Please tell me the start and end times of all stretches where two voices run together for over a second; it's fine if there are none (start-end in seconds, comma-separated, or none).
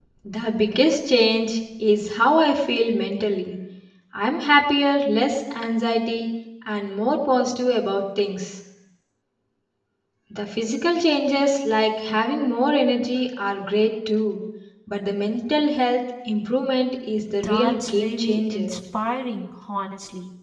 17.4-18.7